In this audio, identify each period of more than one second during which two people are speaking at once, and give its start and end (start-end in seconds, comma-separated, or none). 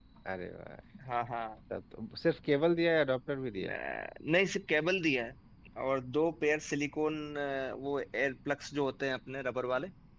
none